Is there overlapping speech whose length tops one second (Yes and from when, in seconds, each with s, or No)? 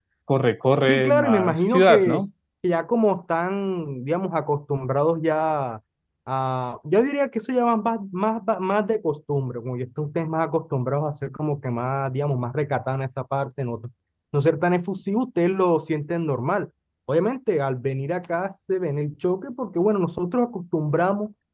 Yes, from 0.9 s